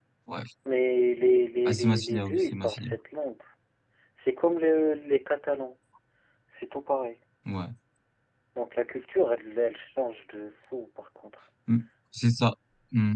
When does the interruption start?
1.6 s

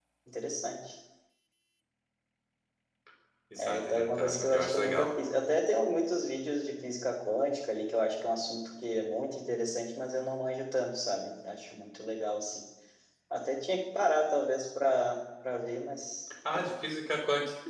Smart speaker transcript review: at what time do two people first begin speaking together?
3.6 s

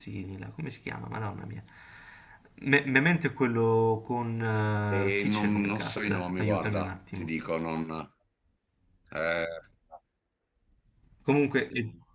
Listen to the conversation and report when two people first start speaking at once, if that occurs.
4.9 s

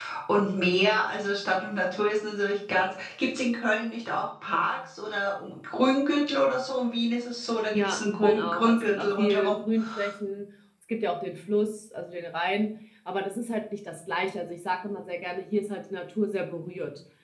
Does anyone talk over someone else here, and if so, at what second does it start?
7.7 s

